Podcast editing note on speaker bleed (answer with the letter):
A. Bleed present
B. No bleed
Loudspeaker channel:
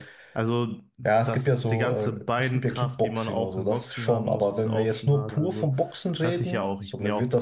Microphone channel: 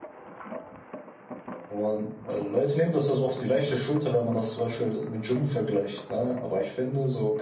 B